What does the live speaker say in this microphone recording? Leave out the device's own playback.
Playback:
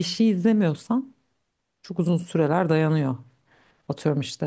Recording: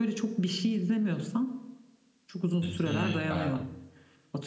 Peki e,

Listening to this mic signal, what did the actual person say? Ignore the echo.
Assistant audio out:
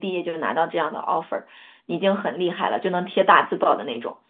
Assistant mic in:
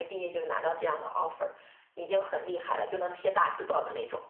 none

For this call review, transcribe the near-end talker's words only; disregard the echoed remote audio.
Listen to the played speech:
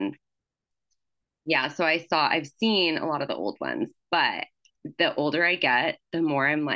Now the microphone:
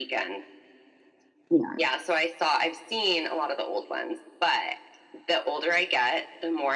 Yeah.

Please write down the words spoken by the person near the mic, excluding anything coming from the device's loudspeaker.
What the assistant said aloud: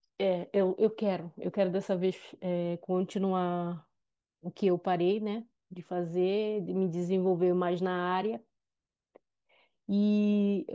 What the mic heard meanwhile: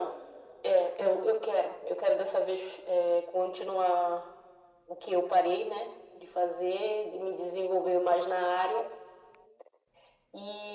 none

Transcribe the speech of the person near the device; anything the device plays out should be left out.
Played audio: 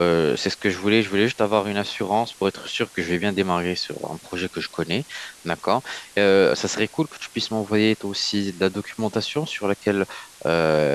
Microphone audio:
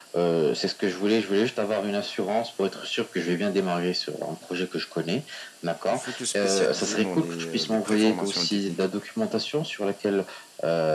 Il faut te spécialiser dans les, euh, les préformations techniques.

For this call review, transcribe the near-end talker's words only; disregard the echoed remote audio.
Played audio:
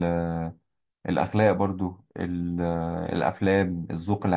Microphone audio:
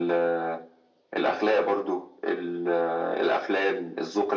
none

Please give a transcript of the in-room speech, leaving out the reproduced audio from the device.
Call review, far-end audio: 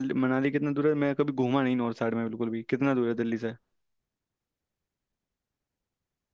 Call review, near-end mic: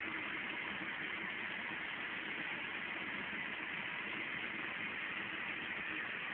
none

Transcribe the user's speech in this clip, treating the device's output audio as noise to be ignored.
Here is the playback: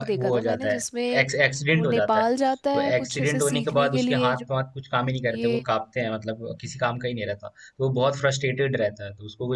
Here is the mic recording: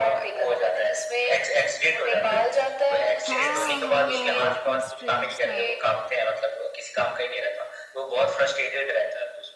हाँ हाँ हाँ डॉक्टर स्ट्रेंज था

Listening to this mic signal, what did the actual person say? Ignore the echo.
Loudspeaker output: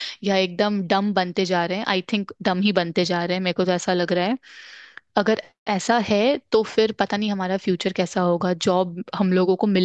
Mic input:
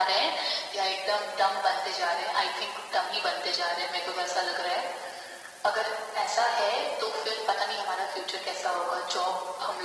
none

